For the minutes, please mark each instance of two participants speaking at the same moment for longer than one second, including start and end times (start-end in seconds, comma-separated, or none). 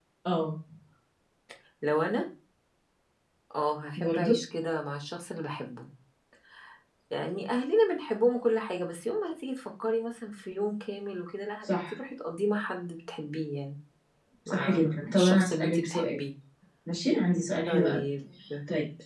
14.5-16.2